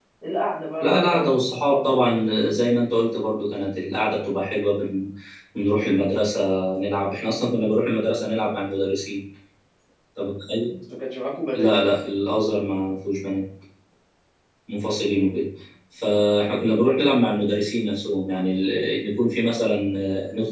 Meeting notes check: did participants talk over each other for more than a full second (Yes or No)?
Yes